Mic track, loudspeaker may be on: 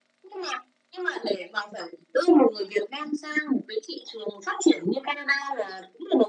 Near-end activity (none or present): none